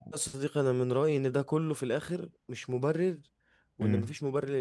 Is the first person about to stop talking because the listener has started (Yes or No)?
No